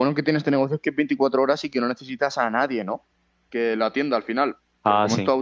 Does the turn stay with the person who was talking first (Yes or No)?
Yes